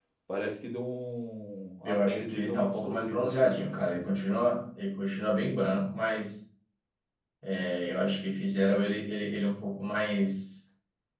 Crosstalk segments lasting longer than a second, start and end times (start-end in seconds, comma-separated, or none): 1.9-4.2